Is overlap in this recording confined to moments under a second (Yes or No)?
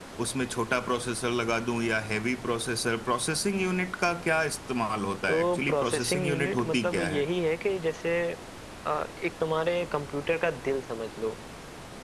No